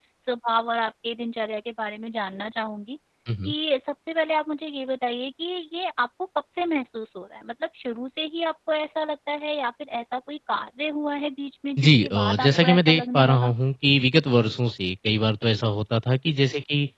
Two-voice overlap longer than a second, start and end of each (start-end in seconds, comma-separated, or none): 11.8-13.5